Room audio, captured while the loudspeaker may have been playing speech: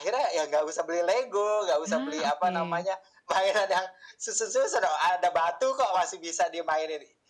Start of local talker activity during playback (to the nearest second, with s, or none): 2 s